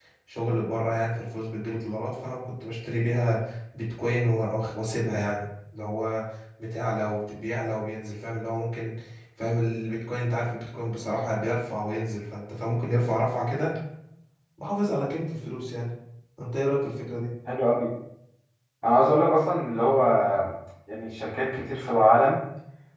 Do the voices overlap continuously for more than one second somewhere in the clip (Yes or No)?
No